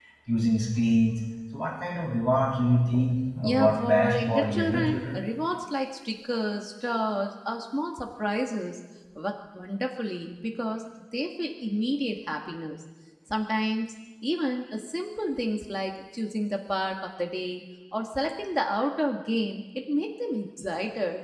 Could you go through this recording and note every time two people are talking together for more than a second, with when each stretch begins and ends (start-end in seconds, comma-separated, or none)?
3.4-5.2